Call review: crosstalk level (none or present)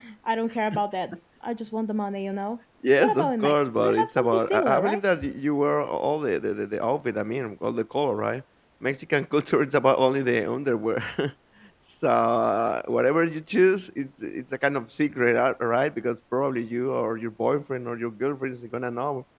present